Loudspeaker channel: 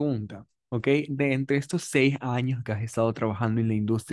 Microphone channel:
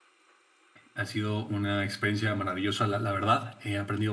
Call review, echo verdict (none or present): none